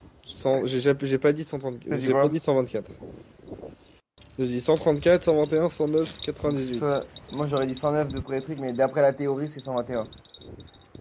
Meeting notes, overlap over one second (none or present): none